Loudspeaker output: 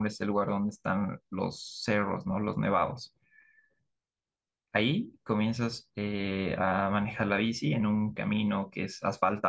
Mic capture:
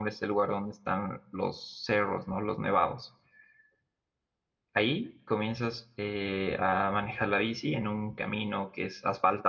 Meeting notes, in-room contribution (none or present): none